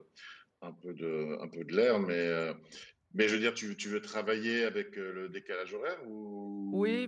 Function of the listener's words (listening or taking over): taking over